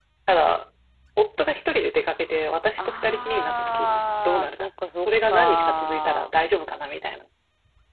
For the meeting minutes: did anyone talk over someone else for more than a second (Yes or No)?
Yes